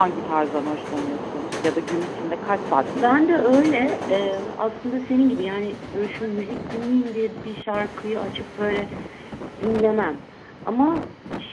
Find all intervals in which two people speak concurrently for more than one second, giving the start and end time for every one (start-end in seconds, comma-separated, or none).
2.9-4.3